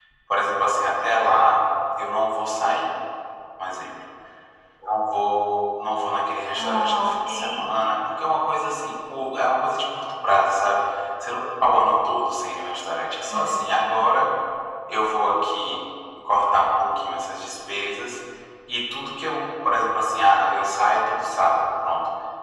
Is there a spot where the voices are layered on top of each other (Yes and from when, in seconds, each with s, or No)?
Yes, from 6.5 s